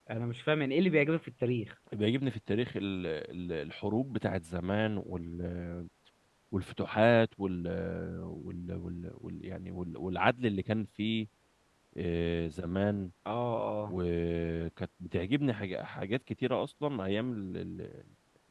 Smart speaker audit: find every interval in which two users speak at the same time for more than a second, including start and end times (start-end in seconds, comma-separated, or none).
none